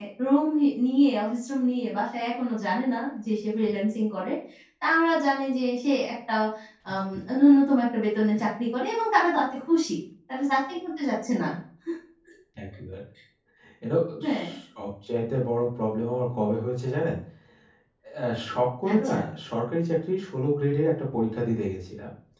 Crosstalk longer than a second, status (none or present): none